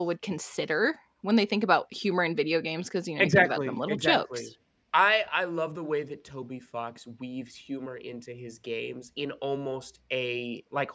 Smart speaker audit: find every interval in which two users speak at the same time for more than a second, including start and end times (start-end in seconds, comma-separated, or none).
3.2-4.5